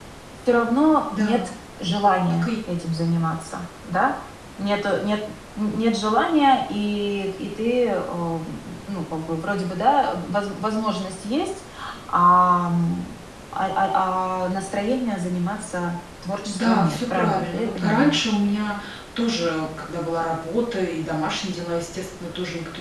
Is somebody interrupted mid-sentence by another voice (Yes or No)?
Yes